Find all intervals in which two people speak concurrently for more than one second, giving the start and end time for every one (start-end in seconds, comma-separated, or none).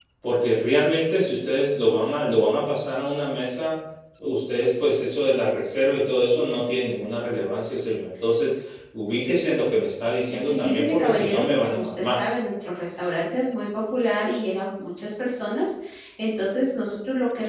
10.3-12.4